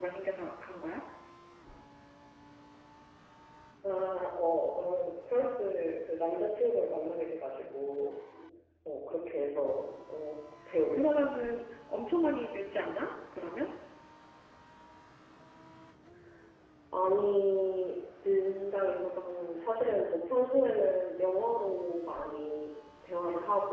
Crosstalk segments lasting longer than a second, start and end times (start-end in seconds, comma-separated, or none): none